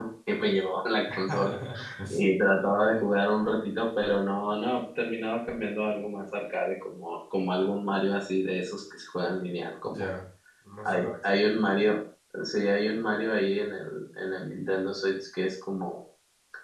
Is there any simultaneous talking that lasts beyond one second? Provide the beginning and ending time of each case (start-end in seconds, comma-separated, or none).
none